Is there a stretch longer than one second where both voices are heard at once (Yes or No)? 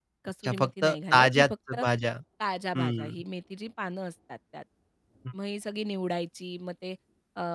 Yes